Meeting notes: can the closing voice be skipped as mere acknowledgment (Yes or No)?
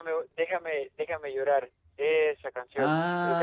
No